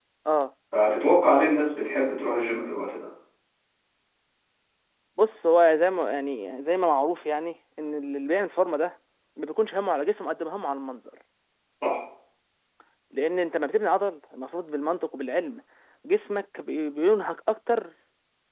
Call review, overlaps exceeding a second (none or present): none